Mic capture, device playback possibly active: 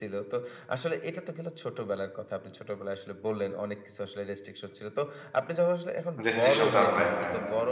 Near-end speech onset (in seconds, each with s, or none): 6.2 s